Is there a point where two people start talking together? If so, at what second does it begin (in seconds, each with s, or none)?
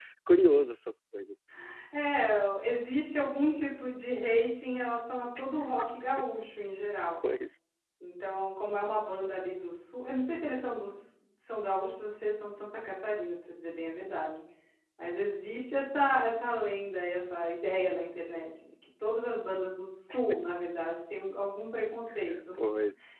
none